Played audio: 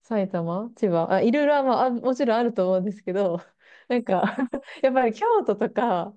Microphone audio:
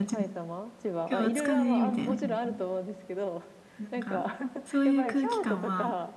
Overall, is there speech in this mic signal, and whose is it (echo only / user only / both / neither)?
both